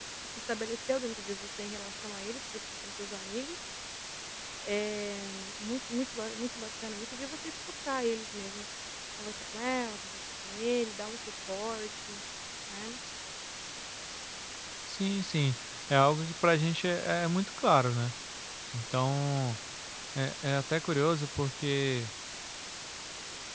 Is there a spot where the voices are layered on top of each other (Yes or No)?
No